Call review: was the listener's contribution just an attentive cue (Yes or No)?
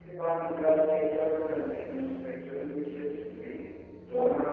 Yes